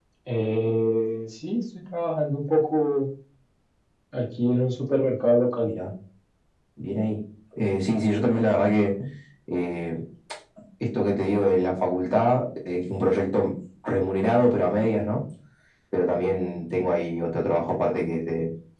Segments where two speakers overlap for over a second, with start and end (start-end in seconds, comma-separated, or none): none